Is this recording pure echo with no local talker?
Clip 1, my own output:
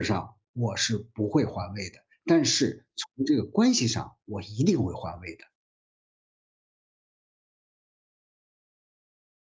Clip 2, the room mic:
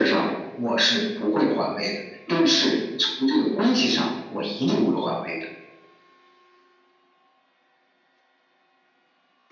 Yes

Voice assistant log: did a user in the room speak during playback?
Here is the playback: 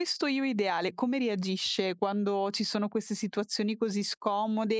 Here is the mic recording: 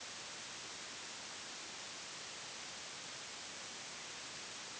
No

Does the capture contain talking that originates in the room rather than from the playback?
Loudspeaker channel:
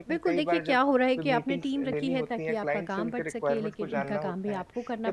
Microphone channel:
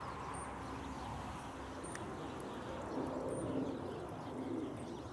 No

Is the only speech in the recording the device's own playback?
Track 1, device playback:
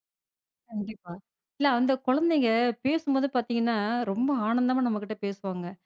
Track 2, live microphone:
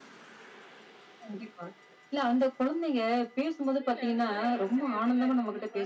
No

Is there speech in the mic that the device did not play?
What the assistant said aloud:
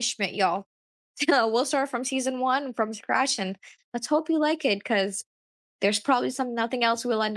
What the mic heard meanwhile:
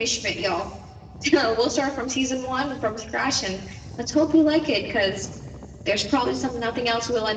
No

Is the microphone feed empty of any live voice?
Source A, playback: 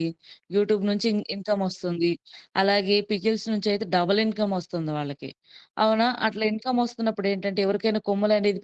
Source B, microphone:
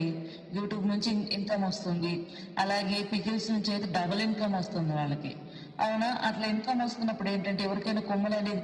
Yes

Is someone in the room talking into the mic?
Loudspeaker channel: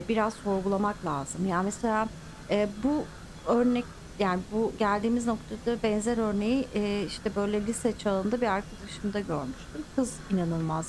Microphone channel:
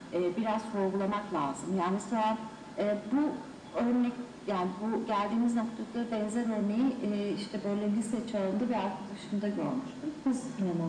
No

